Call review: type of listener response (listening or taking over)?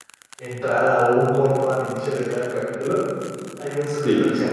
listening